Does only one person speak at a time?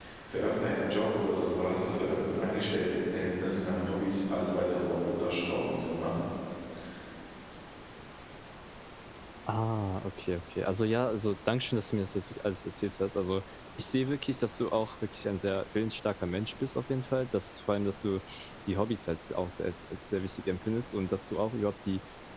Yes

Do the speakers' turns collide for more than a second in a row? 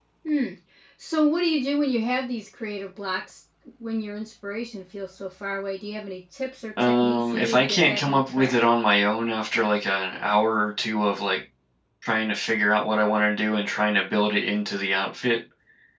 Yes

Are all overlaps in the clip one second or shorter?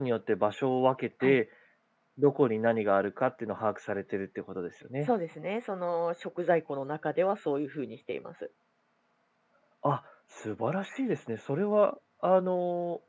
Yes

